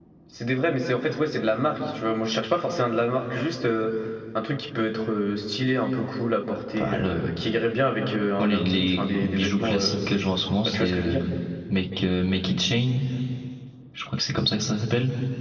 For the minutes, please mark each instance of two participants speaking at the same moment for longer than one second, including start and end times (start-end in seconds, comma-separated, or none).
8.4-10.0